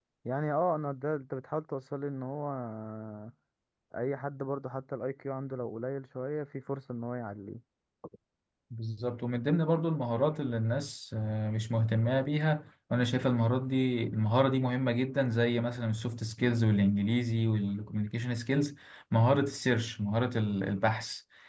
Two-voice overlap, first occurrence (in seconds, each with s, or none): none